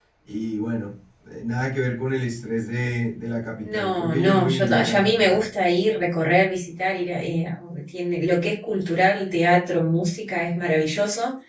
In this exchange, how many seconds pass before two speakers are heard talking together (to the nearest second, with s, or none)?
4 s